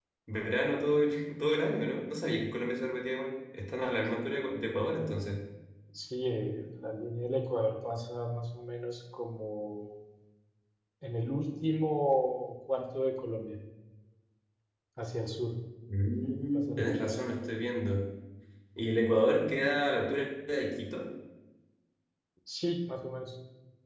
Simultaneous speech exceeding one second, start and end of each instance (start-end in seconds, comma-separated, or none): 16.2-17.4